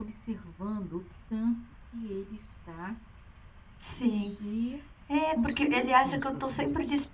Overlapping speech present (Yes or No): Yes